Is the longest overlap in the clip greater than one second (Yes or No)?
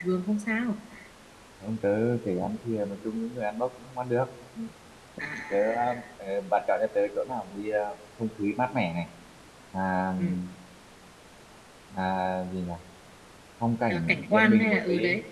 Yes